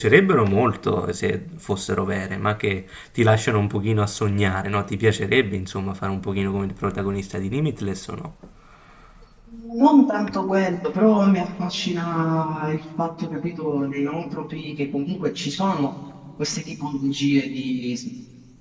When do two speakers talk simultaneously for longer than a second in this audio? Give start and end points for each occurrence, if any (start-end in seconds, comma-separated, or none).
none